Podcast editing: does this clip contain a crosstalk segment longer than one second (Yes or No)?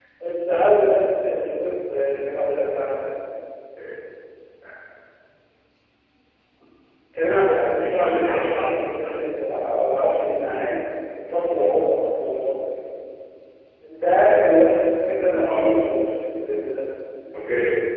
Yes